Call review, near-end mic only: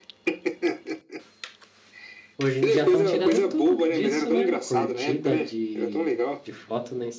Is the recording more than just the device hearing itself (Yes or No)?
Yes